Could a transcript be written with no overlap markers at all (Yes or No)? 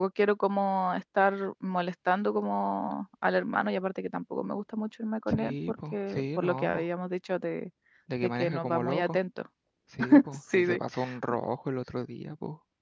No